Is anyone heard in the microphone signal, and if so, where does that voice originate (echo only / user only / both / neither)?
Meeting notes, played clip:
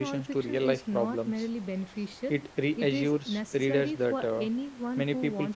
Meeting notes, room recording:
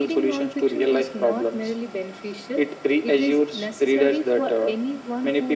echo only